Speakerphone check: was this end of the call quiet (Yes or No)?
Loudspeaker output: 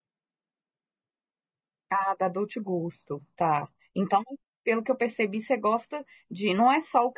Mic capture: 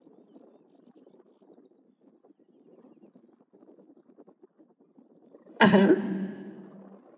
No